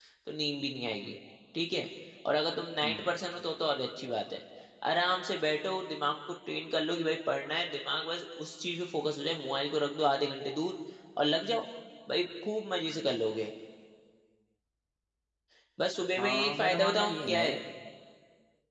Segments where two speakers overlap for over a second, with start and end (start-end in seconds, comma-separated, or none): 16.2-17.4